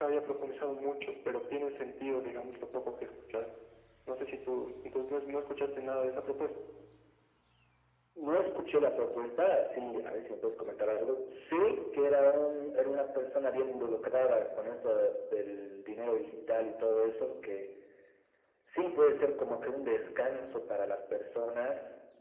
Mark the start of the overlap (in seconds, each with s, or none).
none